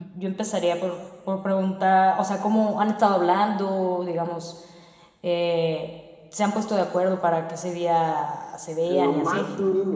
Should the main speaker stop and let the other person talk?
Yes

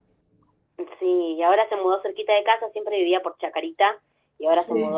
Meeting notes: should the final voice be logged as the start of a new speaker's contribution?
No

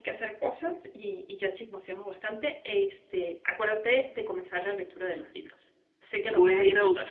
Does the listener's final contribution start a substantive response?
Yes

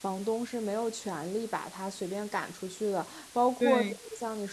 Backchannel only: Yes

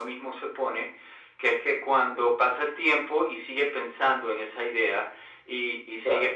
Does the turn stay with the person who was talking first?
Yes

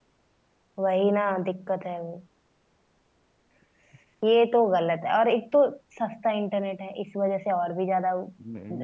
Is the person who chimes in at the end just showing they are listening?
No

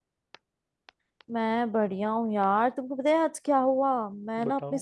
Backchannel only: Yes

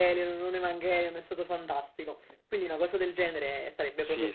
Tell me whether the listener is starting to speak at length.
Yes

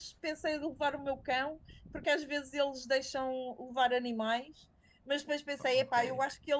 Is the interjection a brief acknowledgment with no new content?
Yes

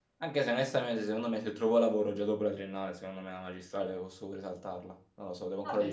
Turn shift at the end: Yes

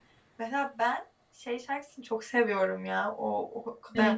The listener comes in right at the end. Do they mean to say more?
No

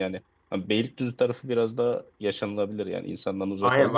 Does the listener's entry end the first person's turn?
Yes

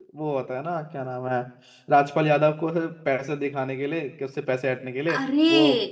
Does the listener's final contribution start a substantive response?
No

